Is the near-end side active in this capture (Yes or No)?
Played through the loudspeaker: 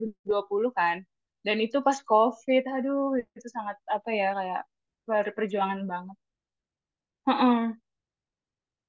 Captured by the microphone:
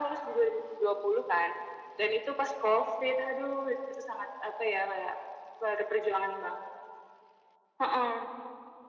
No